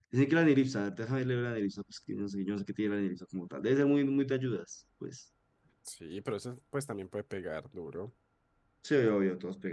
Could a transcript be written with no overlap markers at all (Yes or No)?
Yes